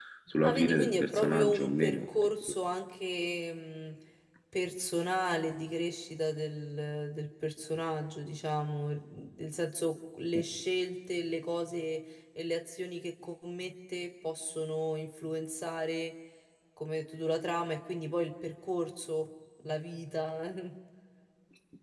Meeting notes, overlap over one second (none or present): present